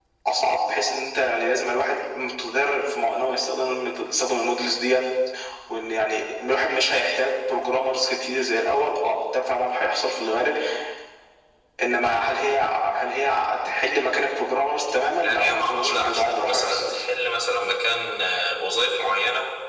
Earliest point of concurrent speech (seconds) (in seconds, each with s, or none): 15.2 s